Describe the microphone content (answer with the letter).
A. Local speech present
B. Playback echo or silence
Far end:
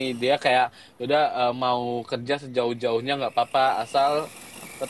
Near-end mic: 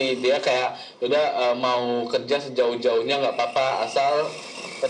B